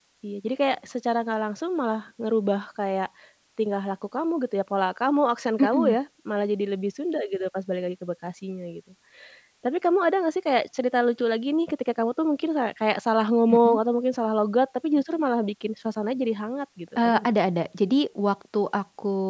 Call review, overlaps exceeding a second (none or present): none